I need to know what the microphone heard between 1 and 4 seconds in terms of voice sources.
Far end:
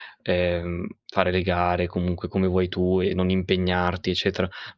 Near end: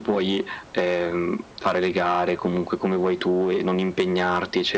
echo only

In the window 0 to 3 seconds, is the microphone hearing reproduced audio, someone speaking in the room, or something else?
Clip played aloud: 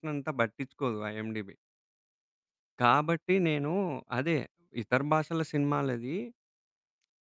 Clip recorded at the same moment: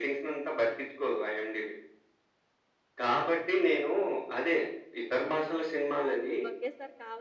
echo only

